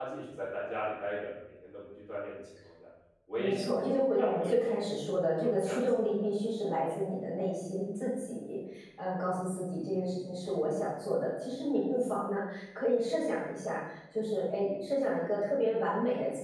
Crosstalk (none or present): present